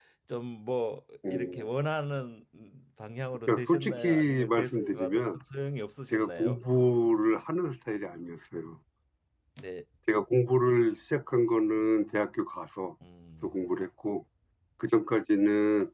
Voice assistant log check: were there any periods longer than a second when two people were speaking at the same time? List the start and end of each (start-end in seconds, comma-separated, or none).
3.5-5.4